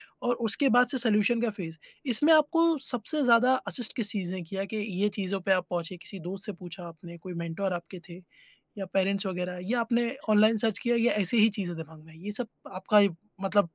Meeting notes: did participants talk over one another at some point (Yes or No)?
No